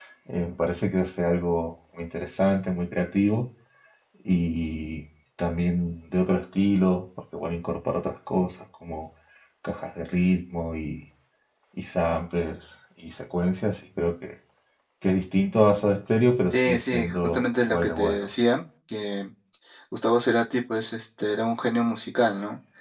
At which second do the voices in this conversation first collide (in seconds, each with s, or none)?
16.5 s